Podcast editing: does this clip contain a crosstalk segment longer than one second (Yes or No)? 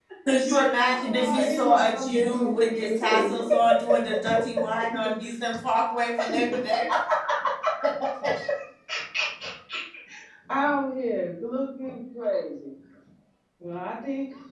Yes